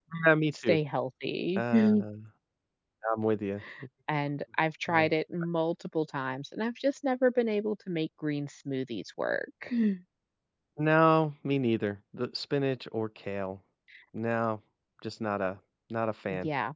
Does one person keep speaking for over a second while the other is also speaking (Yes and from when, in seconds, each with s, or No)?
No